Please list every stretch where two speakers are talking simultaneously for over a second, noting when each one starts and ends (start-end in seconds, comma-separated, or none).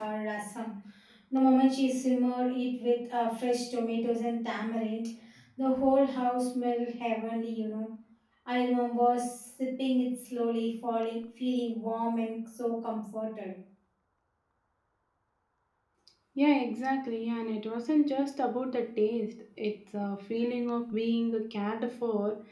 none